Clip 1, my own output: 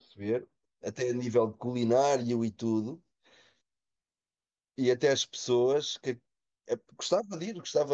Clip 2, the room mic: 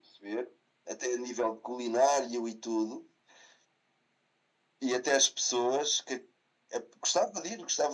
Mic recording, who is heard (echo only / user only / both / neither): echo only